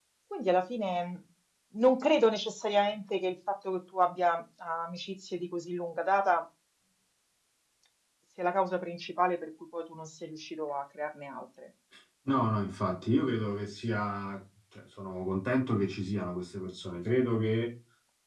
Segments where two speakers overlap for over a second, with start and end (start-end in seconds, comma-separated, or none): none